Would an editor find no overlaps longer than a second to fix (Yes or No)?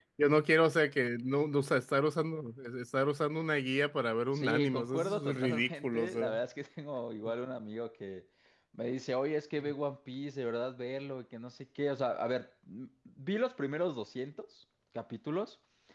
No